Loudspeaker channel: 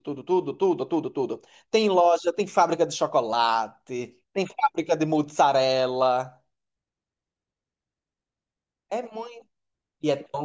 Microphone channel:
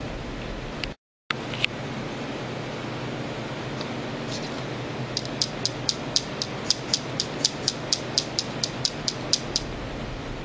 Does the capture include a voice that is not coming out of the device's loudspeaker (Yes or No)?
No